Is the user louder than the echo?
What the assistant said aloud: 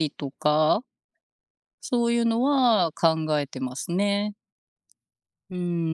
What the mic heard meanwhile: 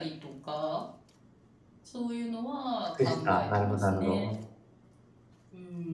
Yes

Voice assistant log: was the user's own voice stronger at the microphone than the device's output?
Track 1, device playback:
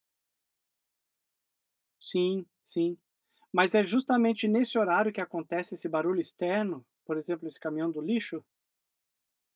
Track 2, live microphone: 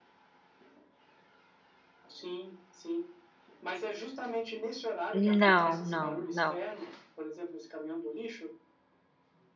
Yes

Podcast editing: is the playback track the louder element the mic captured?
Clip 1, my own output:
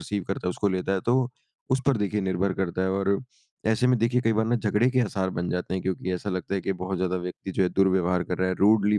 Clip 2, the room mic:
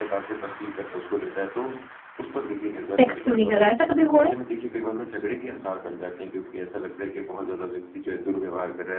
No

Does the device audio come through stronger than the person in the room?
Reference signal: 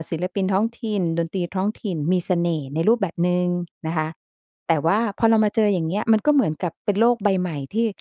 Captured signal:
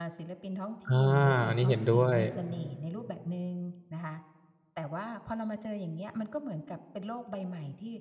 No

